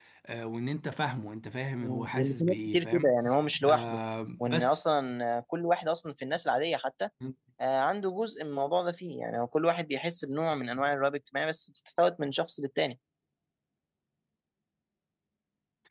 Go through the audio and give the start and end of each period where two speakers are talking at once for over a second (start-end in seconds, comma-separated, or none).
1.8-3.1